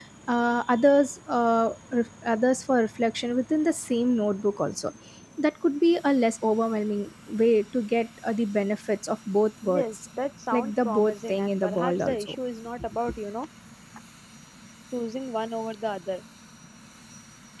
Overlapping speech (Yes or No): Yes